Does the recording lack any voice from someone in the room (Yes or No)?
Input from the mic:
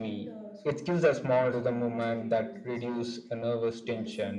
No